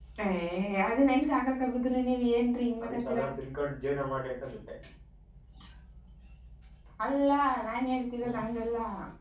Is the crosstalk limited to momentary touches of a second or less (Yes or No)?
Yes